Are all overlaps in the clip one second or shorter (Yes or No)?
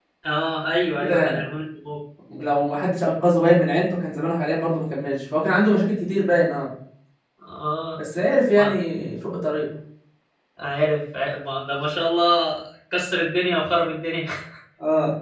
Yes